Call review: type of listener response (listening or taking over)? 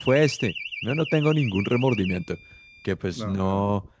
listening